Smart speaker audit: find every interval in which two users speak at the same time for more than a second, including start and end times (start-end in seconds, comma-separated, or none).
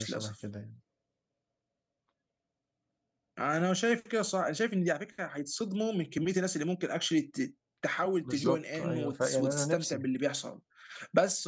8.2-10.0